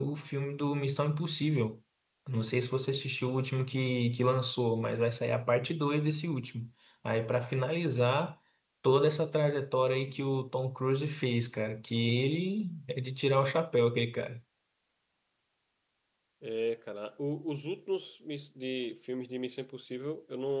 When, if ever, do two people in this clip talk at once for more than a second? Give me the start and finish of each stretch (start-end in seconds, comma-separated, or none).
none